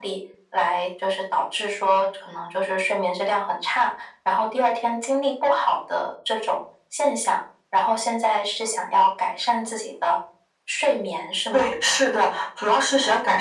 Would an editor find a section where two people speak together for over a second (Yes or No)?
No